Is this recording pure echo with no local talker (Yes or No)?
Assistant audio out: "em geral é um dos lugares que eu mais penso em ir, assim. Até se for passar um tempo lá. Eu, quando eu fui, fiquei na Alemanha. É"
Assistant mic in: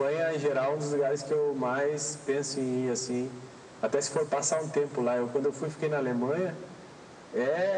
Yes